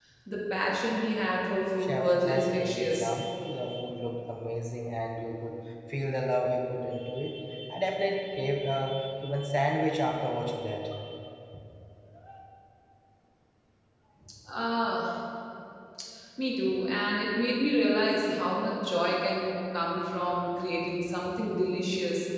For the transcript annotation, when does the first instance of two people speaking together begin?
1.8 s

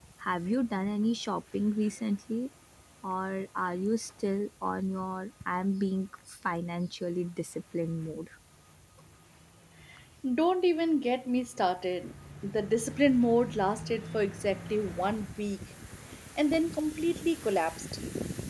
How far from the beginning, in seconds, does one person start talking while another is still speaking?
none

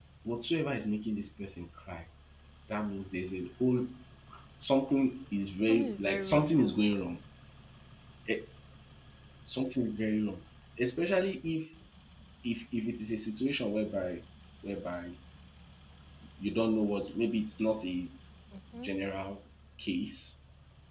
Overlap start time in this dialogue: 5.7 s

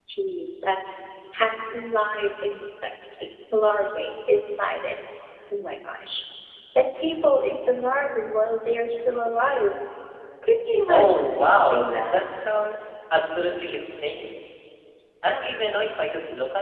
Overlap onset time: 10.9 s

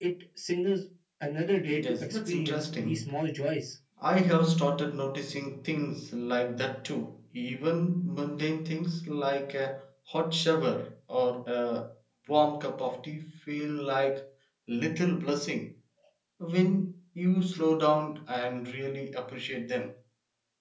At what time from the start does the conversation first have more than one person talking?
1.7 s

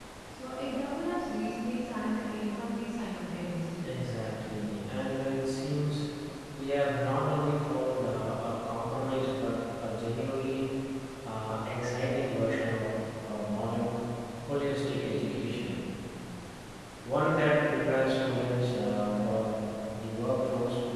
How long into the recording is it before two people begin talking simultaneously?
none

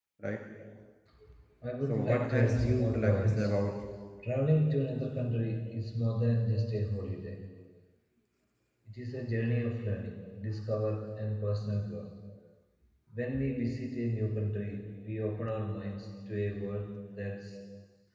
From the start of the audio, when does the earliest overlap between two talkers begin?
1.9 s

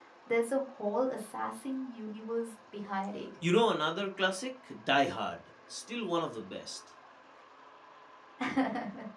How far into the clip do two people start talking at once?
none

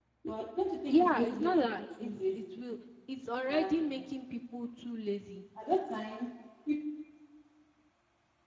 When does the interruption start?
0.9 s

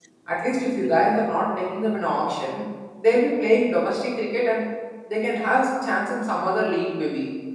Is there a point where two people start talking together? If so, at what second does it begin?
none

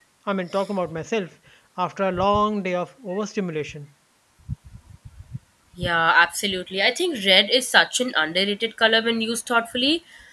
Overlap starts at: none

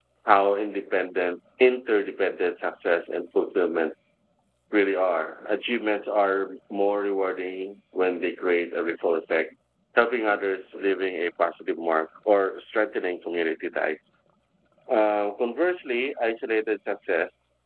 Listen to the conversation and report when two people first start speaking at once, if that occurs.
none

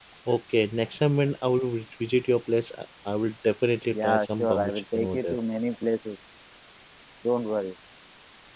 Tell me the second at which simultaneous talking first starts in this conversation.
3.9 s

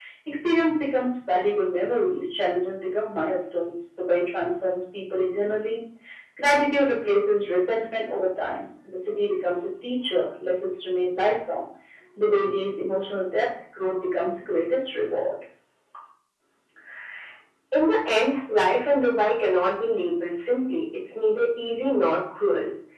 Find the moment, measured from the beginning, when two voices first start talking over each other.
none

